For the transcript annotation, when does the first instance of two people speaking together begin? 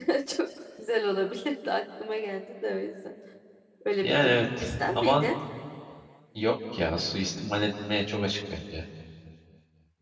4.0 s

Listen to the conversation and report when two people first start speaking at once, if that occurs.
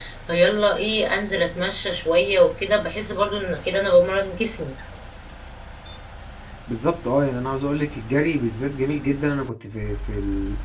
none

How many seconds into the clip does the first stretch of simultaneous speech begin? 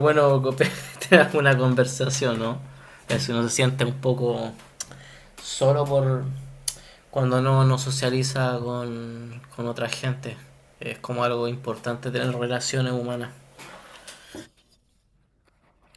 none

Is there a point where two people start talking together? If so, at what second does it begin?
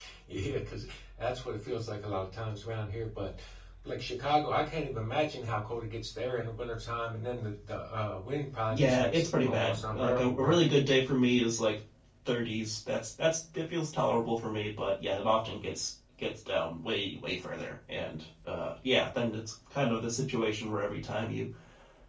8.7 s

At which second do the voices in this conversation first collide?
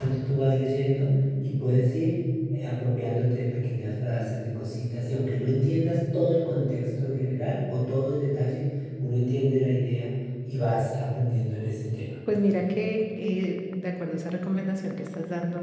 none

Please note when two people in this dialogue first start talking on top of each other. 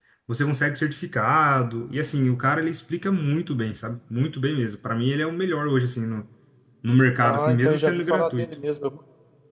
7.2 s

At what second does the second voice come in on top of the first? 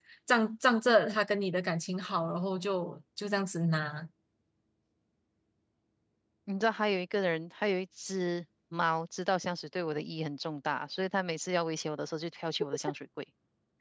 none

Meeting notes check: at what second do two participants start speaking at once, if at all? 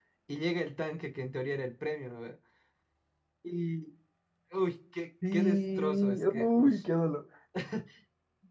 5.3 s

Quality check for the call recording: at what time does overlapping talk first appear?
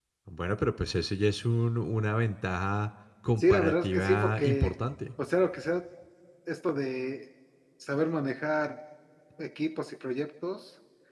3.4 s

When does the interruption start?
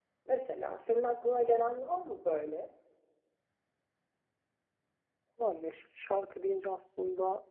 none

